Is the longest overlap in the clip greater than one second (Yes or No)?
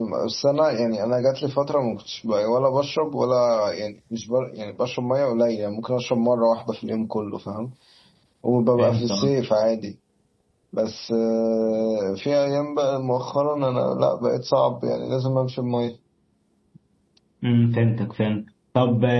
No